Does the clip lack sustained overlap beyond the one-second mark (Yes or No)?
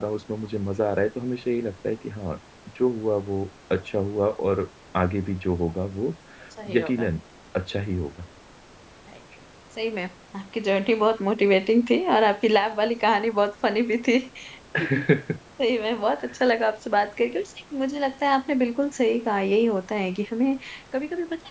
Yes